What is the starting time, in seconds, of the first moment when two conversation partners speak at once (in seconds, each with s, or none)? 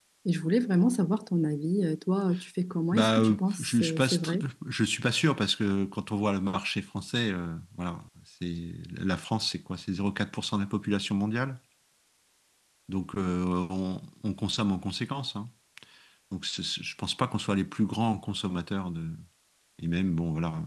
2.9 s